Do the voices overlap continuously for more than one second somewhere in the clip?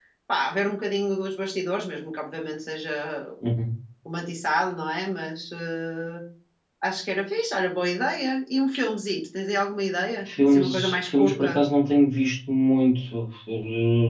Yes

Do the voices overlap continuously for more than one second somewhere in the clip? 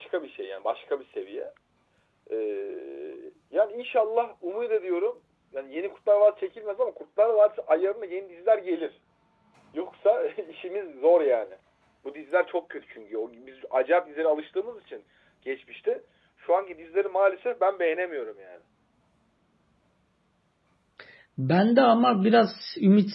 No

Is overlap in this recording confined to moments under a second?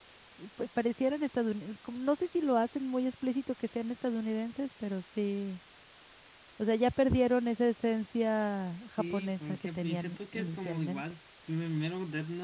No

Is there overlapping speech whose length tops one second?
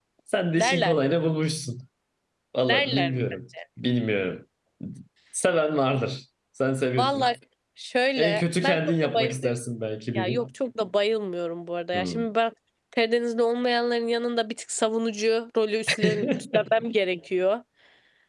Yes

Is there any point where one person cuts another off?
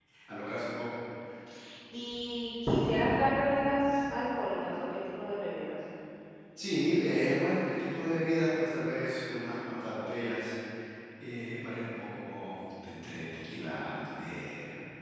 No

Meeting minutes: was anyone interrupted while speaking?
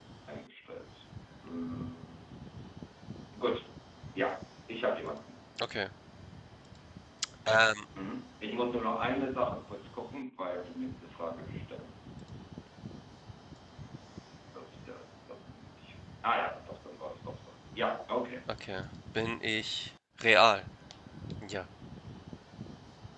No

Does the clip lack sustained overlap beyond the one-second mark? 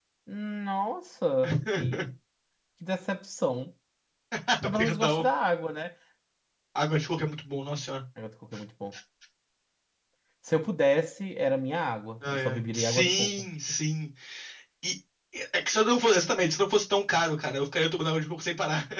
No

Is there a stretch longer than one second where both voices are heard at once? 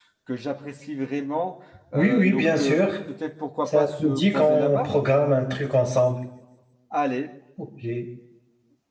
Yes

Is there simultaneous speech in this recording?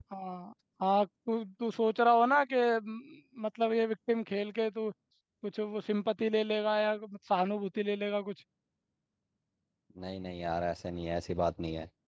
No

